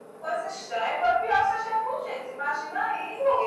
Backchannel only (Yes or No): Yes